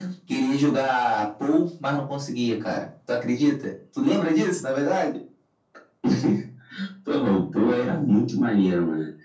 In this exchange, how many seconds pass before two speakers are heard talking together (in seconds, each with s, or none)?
none